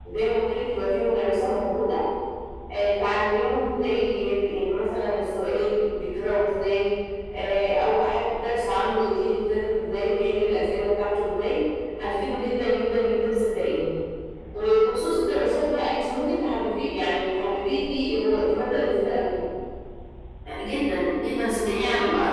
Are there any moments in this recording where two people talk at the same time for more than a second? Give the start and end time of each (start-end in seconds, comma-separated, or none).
none